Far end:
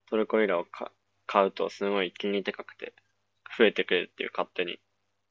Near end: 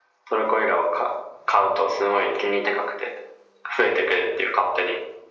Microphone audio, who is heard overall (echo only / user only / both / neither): echo only